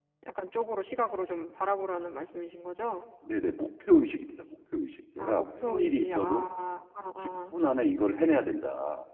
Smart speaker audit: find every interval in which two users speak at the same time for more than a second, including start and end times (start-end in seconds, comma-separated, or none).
5.2-6.5